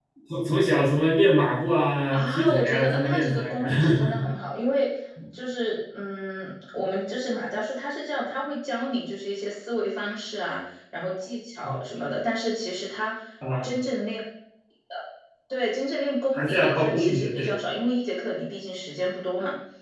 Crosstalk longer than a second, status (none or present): present